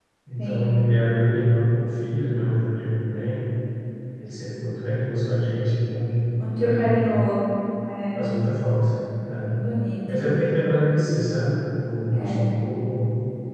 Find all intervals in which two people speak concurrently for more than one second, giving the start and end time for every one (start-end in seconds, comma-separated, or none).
none